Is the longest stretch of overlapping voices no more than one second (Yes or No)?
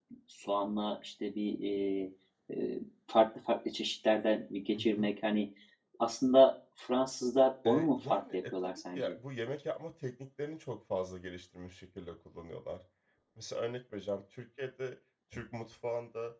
No